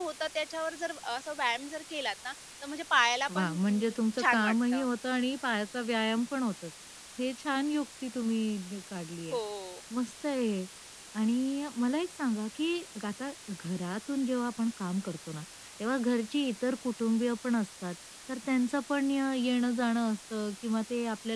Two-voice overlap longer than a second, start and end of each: 3.4-4.8

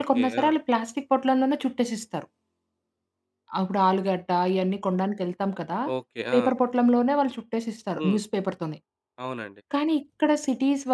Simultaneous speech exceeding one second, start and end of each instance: none

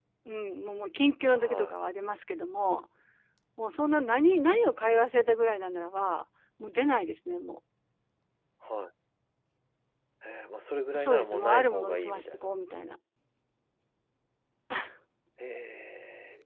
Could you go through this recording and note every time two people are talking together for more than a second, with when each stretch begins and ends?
10.9-12.5

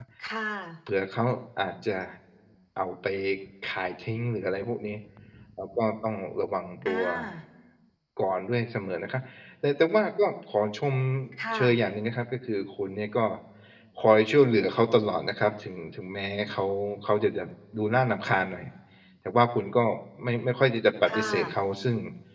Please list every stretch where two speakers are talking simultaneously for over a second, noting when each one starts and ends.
none

